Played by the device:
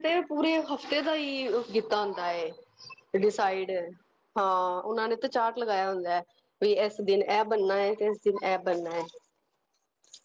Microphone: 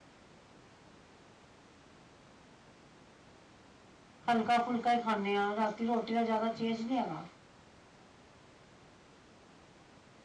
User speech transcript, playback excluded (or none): ਹਲਕਾ ਫੁਲਕਾ ਹੀ ਖਾਂਦੇ ਹਾਂ ਰਾਤੀ- ਰੋਟੀ ਦਾ ਜ਼ਿਆਦਾ ਚੇਂਜ ਨਹੀਂ ਹੈਗਾ।